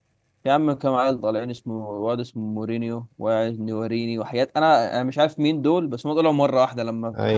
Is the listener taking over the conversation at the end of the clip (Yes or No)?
No